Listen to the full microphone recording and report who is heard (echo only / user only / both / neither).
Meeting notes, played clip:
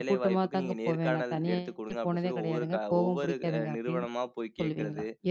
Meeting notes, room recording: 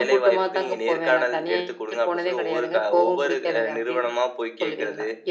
echo only